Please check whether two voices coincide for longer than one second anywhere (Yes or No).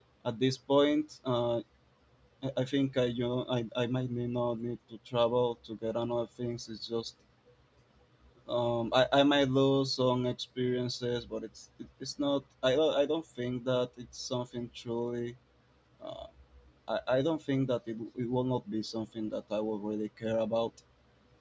No